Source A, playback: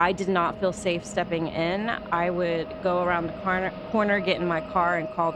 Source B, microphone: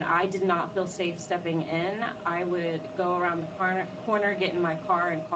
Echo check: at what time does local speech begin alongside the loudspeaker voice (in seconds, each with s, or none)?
none